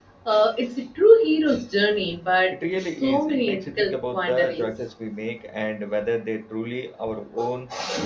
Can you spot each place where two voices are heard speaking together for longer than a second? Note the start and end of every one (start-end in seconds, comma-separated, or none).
2.5-4.8